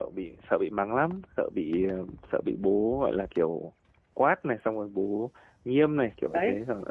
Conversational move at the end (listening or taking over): taking over